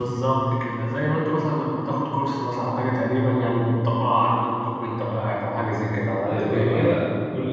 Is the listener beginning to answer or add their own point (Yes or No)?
Yes